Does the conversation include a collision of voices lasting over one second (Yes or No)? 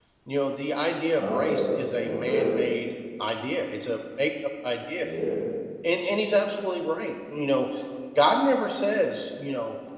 Yes